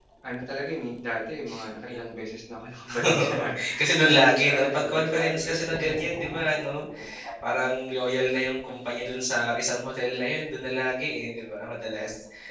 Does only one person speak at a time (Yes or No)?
No